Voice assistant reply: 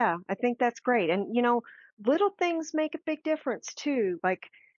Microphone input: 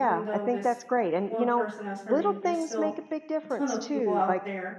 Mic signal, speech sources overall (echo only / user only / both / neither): both